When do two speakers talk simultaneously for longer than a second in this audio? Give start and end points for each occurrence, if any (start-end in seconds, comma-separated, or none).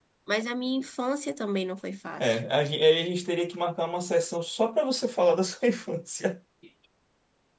none